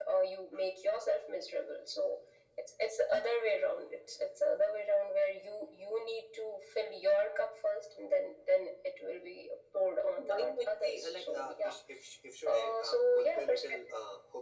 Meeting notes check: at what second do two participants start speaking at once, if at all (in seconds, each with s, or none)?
10.0 s